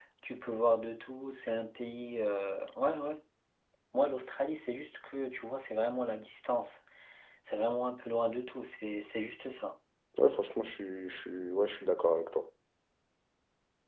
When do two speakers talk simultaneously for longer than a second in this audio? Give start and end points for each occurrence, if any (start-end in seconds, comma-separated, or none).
none